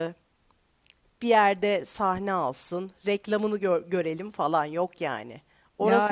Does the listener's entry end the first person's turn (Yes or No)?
No